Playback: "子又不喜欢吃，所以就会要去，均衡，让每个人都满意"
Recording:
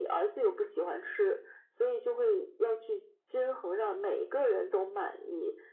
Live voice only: none

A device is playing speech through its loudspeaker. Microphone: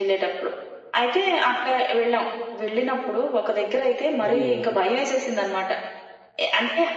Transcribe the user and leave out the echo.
ఓహ్!

